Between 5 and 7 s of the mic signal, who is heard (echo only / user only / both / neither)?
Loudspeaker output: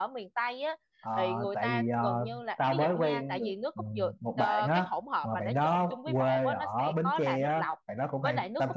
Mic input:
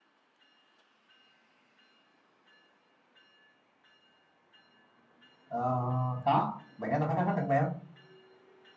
user only